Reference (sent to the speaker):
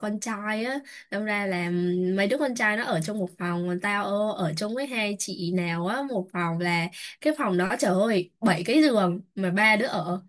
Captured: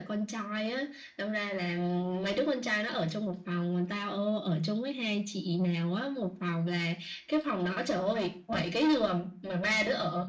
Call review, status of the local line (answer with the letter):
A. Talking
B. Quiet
B